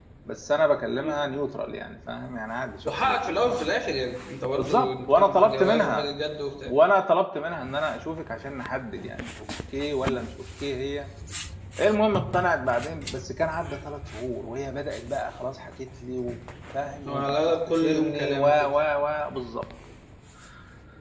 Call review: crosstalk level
present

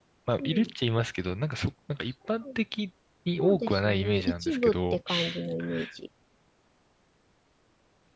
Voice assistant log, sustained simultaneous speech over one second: present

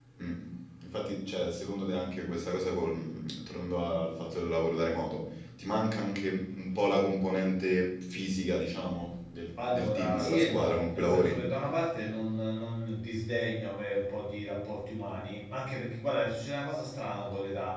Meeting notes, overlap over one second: present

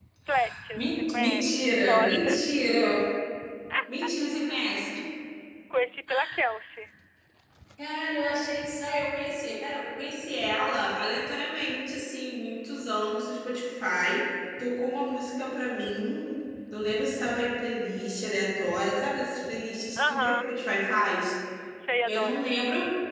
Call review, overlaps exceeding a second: present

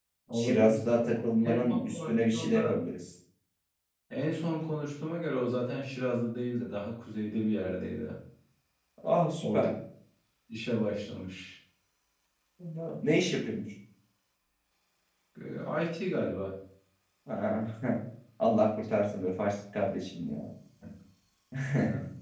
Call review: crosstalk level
present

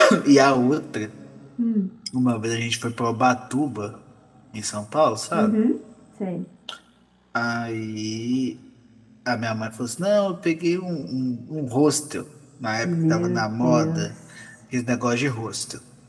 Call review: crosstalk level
present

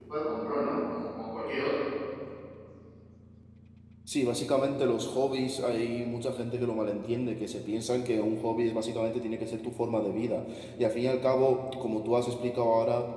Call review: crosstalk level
none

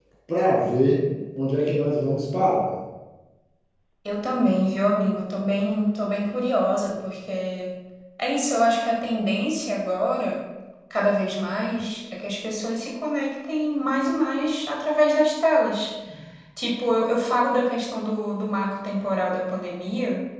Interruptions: none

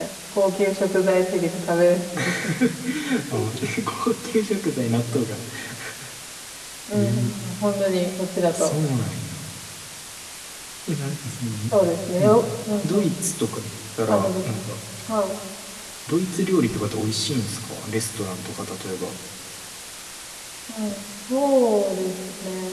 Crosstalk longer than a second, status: none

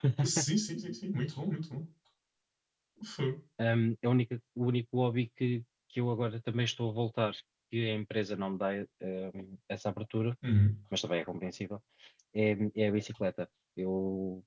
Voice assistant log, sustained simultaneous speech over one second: none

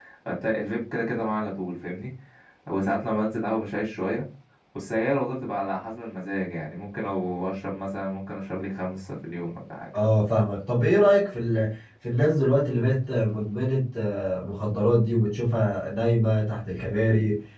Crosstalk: none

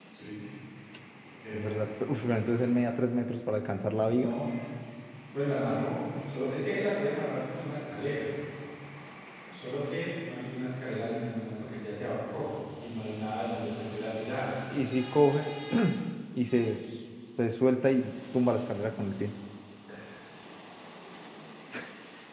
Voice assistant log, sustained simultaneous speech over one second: none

